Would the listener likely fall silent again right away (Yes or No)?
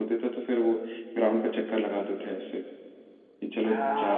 No